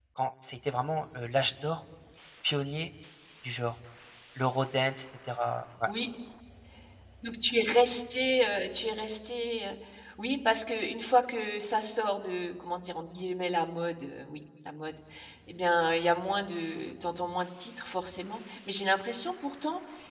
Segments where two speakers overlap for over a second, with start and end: none

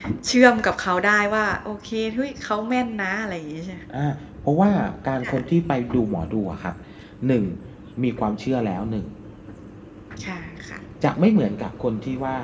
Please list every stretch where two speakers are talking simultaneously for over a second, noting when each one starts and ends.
none

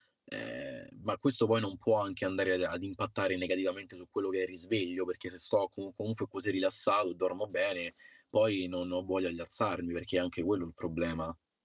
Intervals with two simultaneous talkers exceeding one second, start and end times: none

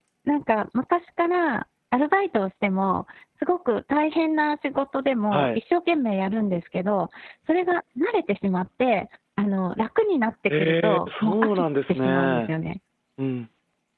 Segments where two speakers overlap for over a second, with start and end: 10.6-12.5

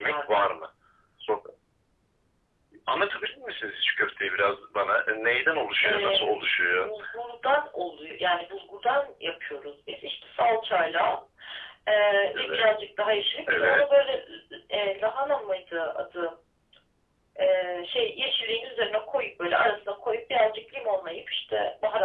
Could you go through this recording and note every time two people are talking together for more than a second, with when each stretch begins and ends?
none

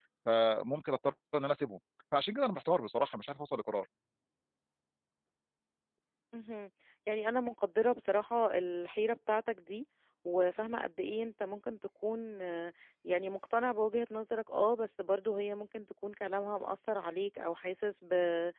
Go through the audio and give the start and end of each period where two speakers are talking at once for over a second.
none

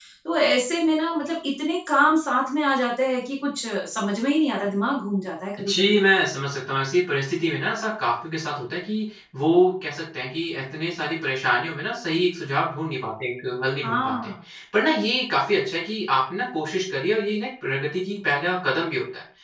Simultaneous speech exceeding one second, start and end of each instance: none

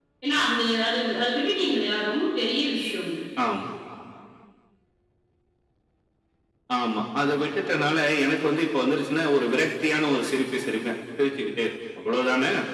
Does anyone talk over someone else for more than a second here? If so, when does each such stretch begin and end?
none

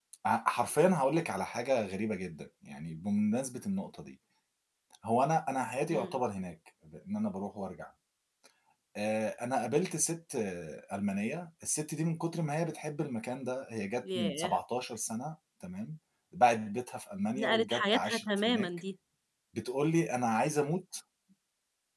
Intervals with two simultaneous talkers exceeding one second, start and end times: 17.4-18.7

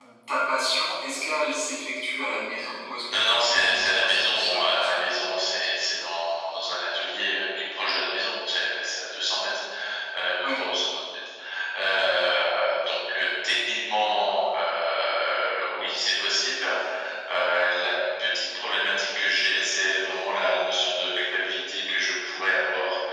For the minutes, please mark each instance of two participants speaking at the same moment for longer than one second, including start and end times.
3.1-5.0

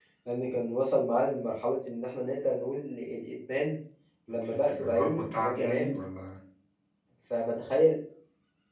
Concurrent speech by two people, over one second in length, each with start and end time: 4.5-6.0

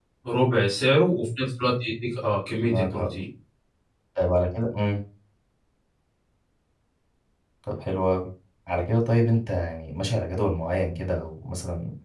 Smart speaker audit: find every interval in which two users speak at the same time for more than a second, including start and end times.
none

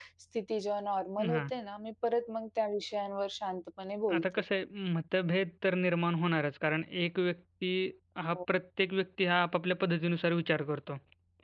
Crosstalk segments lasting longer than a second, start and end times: none

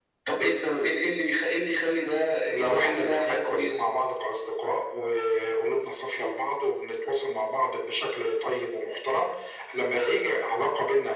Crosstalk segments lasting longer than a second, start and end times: 2.5-3.8

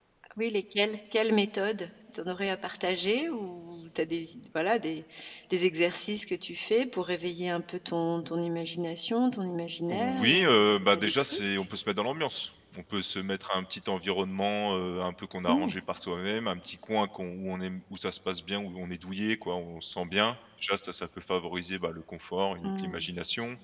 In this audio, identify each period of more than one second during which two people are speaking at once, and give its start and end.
9.9-11.4

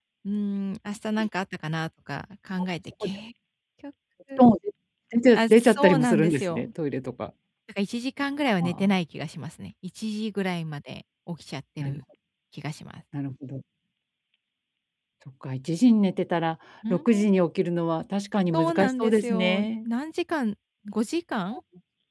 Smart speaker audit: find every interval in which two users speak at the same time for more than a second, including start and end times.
5.3-6.6, 18.5-19.9

